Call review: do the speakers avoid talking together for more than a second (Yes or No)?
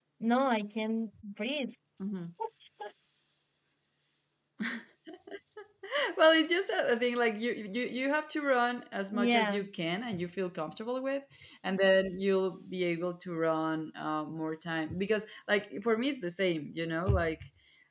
Yes